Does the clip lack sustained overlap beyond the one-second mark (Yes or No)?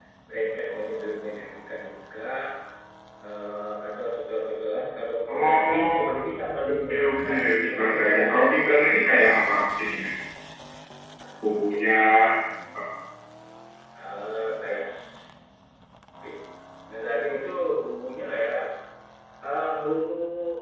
No